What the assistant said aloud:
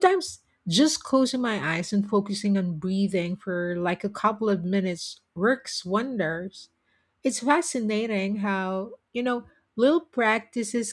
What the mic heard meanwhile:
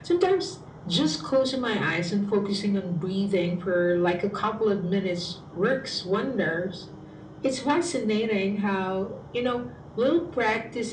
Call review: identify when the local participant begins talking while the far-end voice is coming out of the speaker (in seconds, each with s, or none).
none